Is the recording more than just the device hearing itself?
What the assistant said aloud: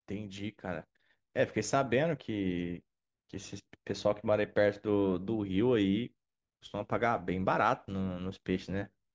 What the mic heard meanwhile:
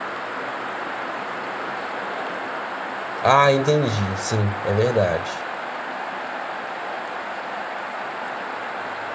Yes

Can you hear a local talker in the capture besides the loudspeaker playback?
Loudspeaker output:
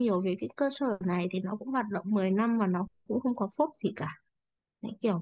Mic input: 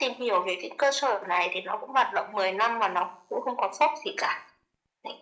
No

